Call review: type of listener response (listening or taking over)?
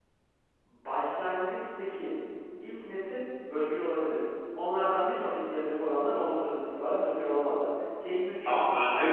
taking over